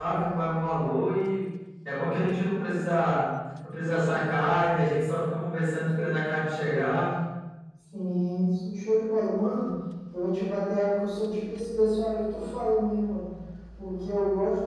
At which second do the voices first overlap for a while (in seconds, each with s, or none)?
none